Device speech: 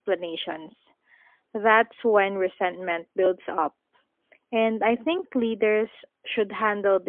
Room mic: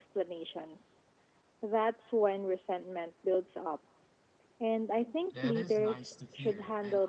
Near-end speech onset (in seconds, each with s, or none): 5.3 s